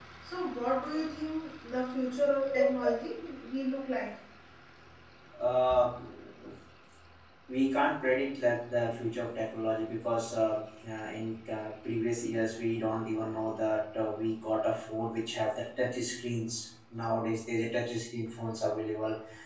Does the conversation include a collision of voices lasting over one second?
No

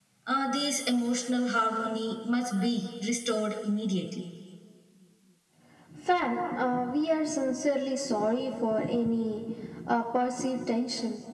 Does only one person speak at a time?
Yes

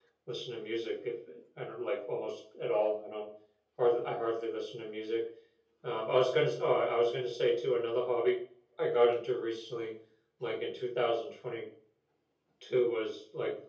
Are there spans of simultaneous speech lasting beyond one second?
No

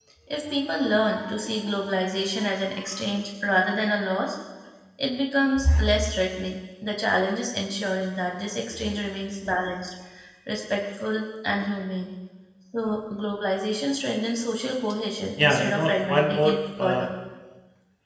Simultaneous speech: Yes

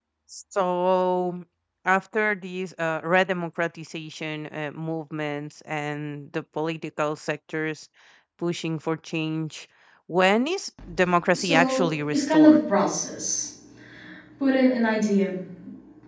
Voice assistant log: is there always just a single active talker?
No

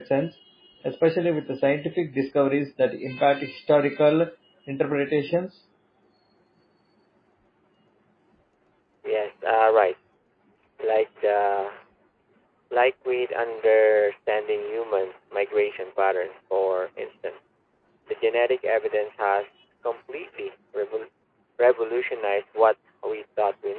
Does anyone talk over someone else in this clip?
No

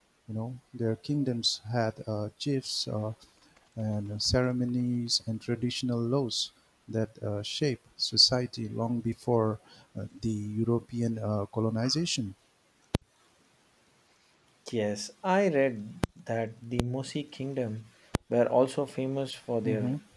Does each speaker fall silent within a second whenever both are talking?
Yes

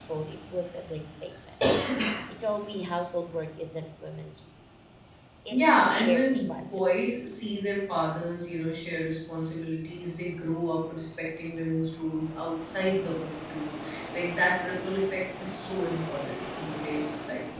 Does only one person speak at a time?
No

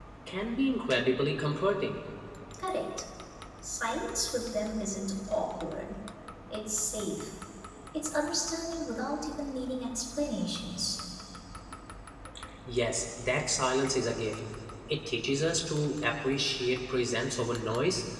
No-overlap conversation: Yes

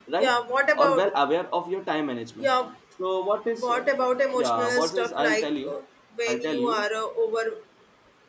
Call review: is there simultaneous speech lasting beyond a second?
Yes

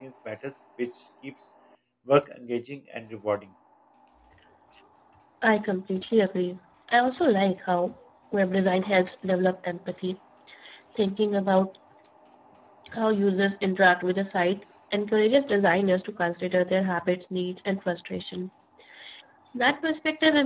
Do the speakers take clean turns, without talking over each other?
Yes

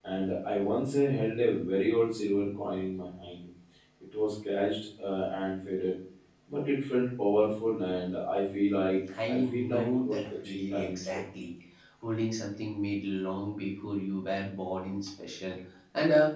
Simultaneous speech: Yes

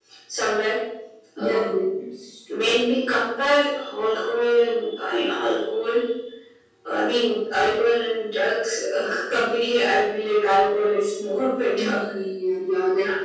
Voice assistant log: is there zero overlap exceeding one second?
Yes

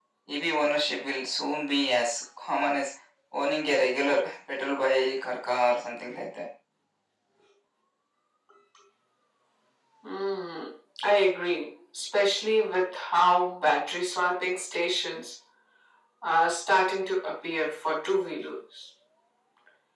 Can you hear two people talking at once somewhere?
No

